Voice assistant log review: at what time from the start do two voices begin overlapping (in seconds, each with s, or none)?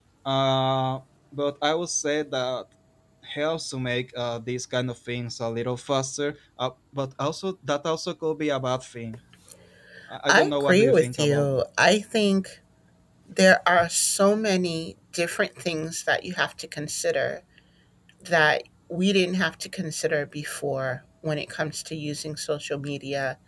10.3 s